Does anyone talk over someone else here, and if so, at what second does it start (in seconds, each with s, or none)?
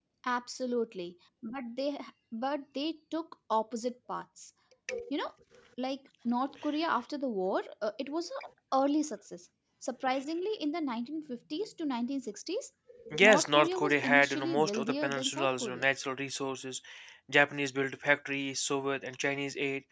13.2 s